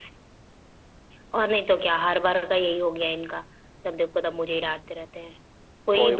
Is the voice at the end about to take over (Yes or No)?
No